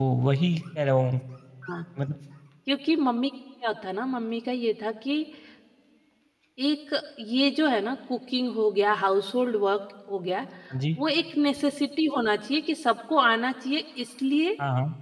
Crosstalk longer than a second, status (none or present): none